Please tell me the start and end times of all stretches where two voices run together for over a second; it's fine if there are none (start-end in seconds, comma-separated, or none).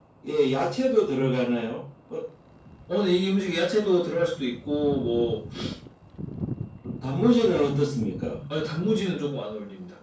none